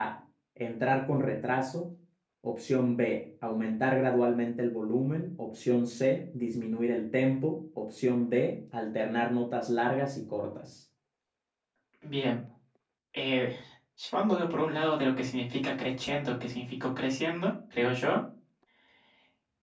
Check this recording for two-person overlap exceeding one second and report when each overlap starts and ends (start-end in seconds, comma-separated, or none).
none